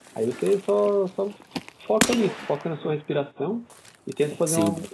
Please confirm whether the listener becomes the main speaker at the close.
No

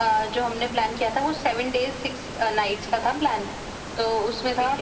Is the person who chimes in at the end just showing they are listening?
Yes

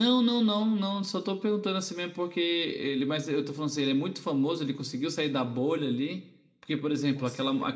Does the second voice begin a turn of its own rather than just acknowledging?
No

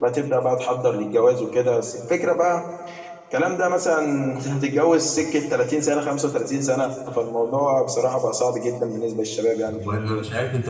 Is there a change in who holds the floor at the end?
Yes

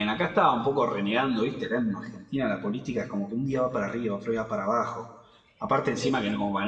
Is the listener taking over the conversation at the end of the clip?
No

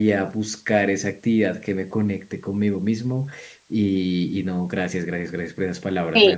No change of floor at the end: No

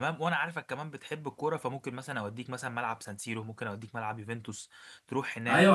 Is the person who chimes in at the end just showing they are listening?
No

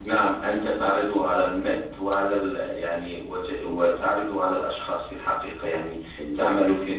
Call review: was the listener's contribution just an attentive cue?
Yes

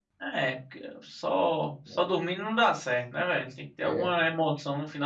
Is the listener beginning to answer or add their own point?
No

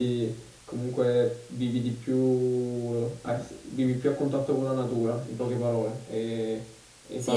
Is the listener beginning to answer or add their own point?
Yes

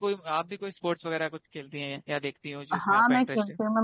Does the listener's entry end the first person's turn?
Yes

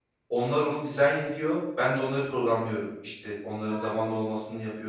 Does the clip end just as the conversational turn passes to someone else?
No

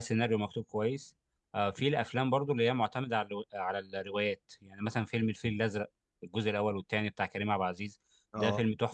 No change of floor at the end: Yes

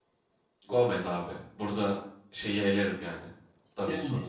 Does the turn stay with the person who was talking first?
Yes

